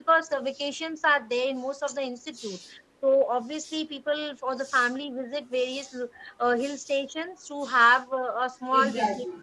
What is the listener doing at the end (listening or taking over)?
taking over